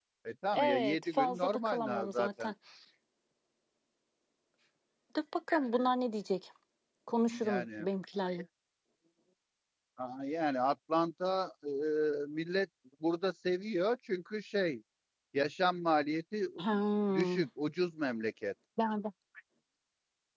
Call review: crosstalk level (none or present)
present